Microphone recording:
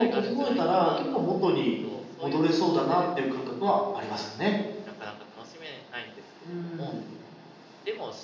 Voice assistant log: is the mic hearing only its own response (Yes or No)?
No